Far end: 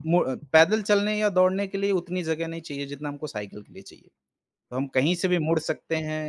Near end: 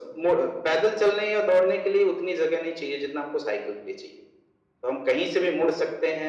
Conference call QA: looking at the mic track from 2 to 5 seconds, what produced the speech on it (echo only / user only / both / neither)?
echo only